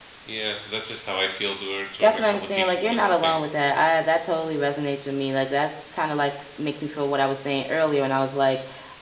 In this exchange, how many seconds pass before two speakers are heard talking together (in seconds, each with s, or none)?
2.0 s